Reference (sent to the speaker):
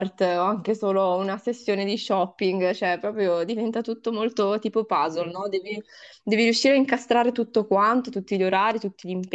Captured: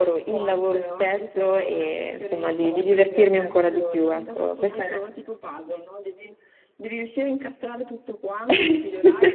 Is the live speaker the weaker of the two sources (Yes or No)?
No